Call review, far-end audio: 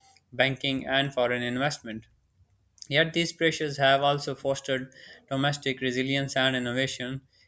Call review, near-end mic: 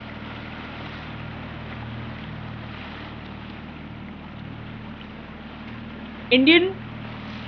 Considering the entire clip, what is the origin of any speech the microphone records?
user only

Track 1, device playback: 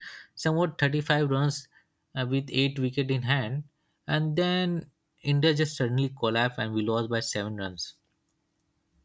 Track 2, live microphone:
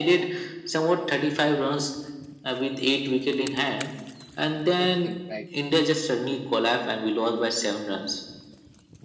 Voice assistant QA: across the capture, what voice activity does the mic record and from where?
both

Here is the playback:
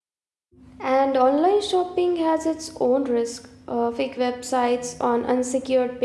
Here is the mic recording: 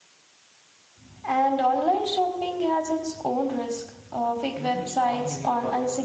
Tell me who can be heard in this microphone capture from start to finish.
both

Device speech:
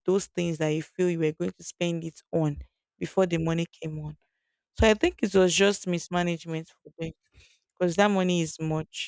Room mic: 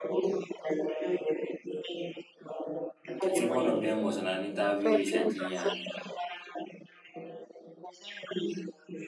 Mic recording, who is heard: both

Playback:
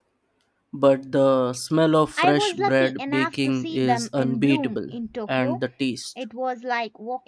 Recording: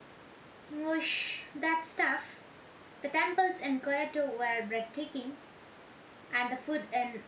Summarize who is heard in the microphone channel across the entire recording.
user only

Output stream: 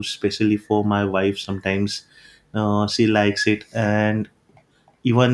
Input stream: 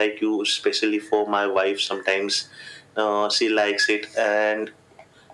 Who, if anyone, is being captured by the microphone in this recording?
echo only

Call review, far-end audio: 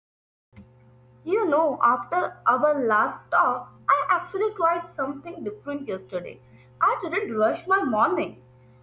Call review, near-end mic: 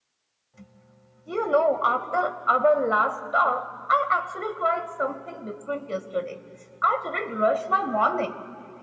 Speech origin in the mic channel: echo only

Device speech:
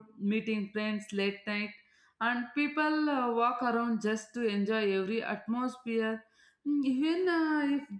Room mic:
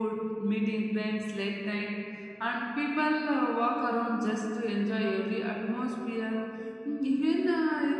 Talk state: echo only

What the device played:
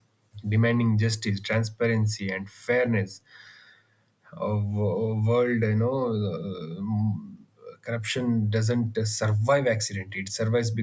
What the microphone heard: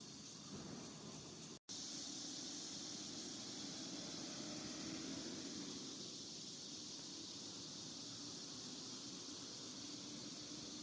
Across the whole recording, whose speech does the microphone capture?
neither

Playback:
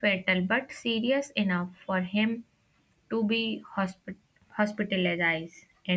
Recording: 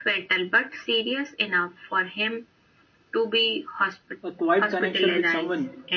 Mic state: both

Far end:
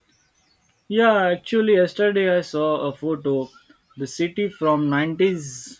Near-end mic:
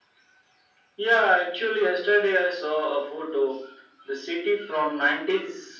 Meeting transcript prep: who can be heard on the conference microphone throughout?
echo only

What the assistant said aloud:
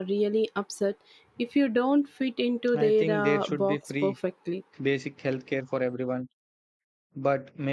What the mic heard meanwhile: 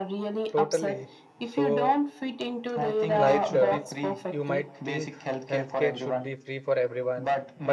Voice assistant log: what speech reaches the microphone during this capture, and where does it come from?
both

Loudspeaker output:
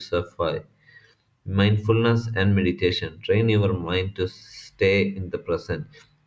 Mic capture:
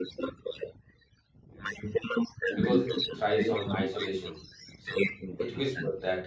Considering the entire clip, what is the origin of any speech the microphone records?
both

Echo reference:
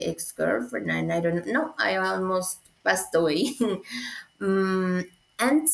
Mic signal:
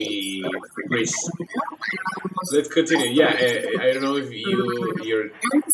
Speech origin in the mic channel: both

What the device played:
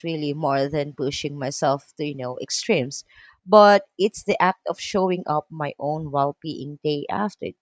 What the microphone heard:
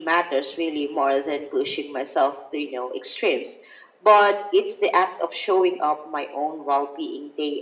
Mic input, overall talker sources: echo only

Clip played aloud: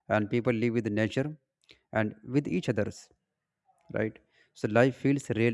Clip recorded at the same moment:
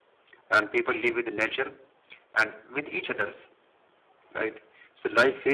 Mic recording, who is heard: echo only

